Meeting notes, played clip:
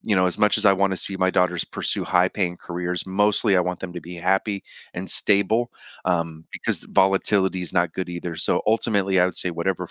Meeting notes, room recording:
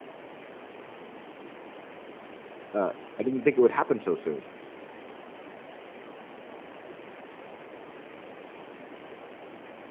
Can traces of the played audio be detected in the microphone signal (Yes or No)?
No